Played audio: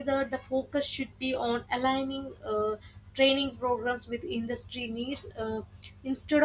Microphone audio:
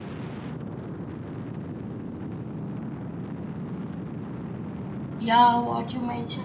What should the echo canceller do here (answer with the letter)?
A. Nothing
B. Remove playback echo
A